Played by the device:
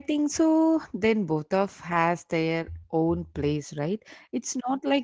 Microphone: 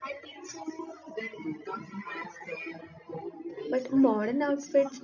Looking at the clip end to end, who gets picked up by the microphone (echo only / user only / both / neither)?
both